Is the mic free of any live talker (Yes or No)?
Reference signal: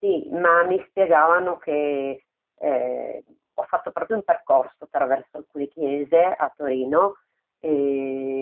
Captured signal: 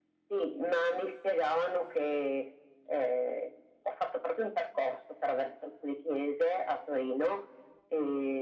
Yes